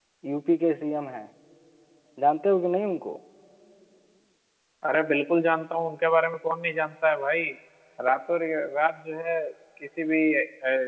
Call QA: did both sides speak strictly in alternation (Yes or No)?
Yes